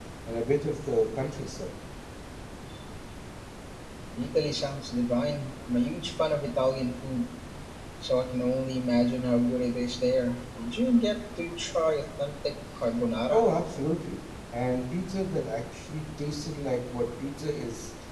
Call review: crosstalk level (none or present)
none